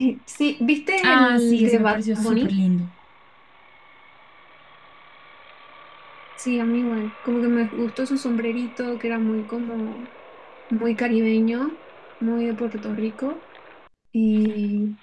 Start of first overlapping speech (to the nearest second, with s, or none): 1 s